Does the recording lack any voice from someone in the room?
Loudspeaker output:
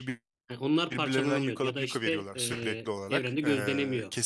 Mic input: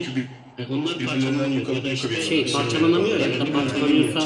No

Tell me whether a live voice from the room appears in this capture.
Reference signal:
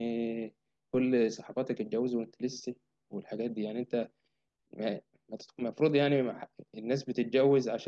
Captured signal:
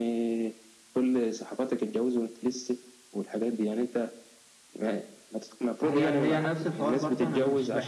Yes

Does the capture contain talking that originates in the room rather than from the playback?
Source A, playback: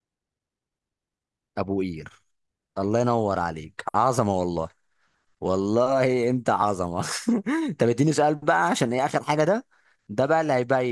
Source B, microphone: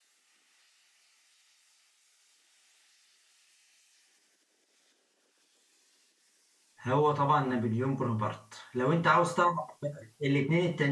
Yes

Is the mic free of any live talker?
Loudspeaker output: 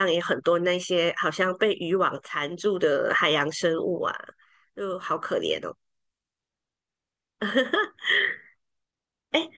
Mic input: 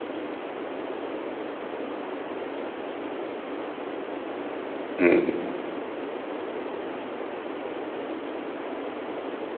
No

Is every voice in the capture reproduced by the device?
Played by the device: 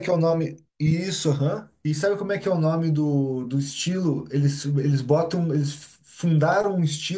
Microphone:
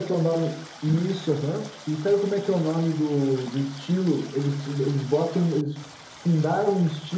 Yes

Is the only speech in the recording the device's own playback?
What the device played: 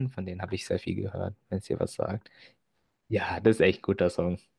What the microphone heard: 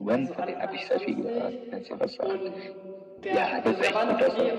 No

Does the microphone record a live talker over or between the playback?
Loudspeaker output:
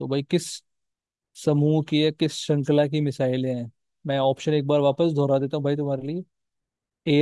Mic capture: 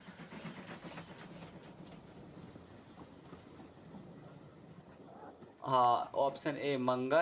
Yes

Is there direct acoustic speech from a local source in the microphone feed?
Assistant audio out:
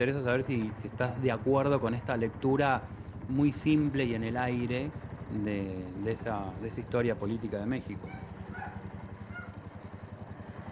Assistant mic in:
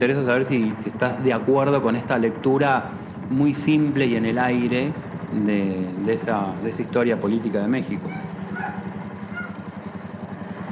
No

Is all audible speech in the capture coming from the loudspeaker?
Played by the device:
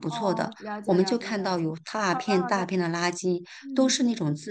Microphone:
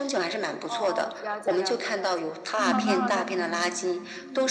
No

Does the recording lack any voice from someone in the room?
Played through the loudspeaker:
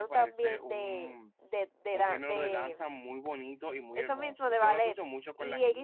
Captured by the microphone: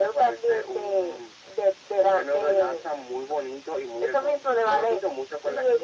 Yes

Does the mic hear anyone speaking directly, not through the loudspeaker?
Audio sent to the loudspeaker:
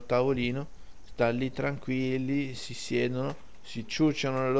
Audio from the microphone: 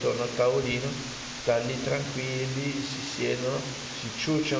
No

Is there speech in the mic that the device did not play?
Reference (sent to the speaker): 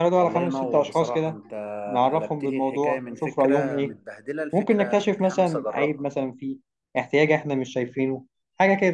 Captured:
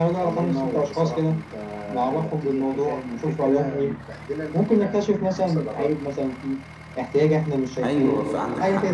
Yes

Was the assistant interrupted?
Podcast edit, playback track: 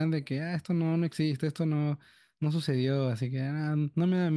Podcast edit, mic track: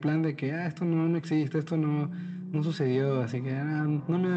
No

